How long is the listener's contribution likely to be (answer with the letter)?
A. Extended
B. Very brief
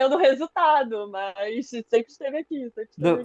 A